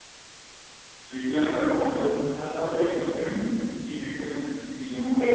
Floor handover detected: No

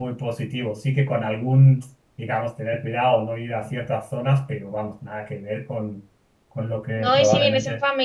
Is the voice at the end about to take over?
Yes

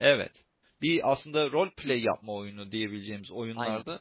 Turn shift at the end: No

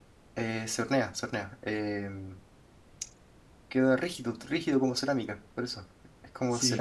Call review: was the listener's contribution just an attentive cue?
No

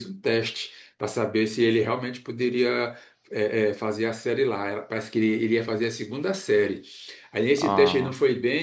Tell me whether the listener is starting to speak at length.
No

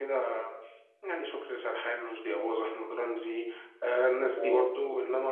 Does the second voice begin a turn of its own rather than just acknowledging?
No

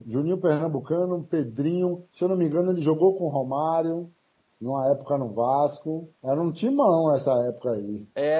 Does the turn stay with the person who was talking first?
No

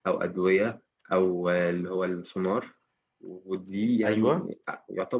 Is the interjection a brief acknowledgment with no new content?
Yes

